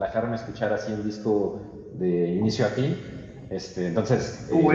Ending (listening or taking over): taking over